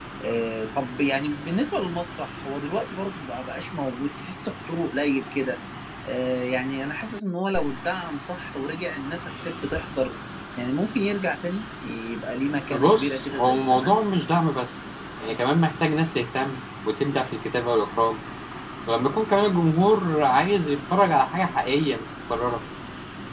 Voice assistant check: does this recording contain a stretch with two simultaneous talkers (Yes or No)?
Yes